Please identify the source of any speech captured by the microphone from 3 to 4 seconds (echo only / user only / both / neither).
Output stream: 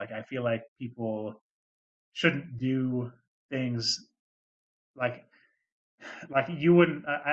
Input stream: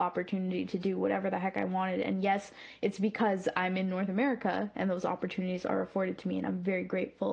user only